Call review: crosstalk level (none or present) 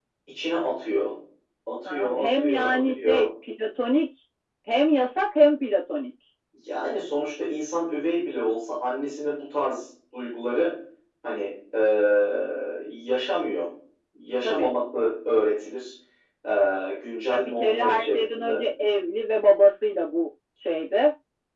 present